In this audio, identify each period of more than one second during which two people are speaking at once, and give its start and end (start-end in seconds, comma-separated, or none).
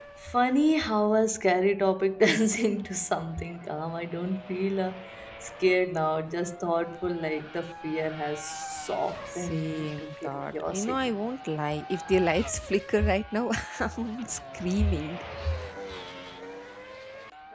9.3-11.1